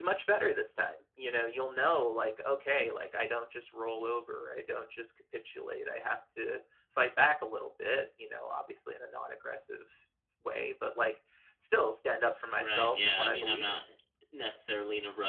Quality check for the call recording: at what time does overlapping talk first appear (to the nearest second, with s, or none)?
13 s